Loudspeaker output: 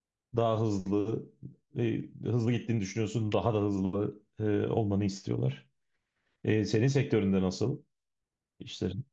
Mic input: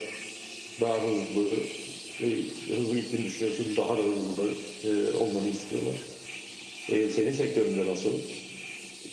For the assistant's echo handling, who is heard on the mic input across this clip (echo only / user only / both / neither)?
echo only